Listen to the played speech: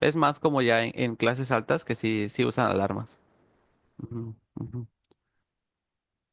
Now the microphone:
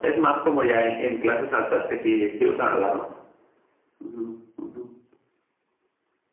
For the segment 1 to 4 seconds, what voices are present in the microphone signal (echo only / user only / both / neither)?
echo only